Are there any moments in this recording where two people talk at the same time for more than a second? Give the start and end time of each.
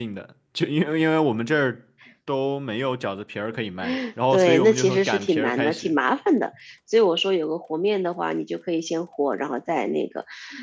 4.3-5.9

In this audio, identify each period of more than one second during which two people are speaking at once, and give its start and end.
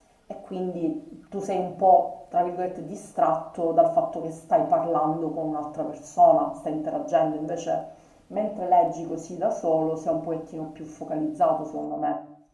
none

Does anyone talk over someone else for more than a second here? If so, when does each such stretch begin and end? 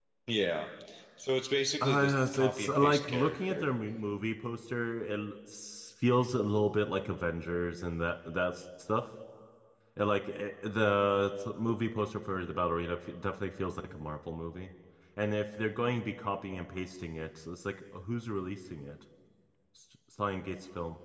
1.8-3.6

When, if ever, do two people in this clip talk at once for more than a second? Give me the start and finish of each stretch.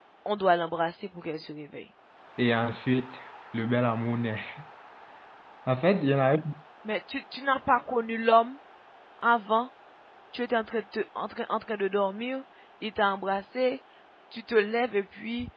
none

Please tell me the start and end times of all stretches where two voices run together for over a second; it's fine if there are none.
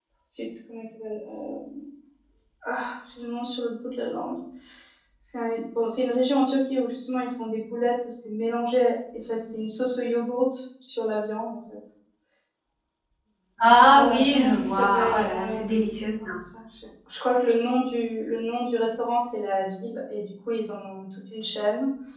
14.0-15.7

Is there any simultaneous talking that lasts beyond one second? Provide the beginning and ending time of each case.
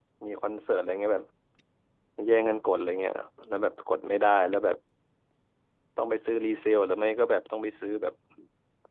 none

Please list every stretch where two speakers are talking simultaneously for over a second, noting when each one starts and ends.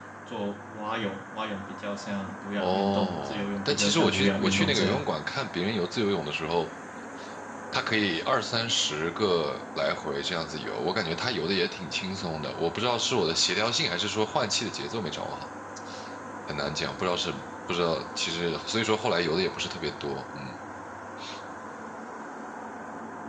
2.6-5.0

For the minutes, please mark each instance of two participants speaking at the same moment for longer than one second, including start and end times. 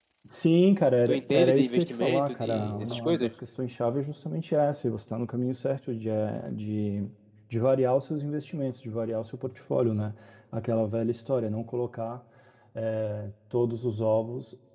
1.1-3.3

